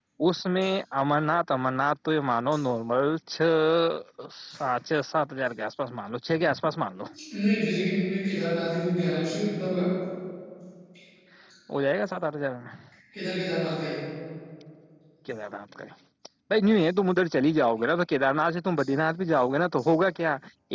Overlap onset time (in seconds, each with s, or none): none